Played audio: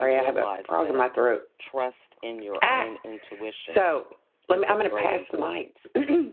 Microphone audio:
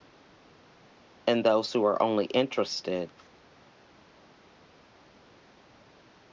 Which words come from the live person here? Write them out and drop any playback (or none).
and those who are only interested